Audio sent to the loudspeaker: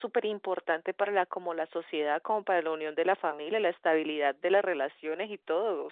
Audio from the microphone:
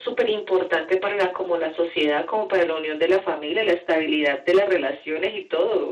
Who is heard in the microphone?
echo only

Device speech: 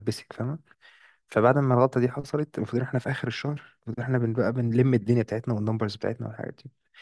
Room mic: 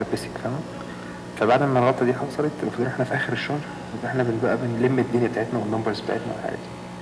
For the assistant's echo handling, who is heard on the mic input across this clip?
echo only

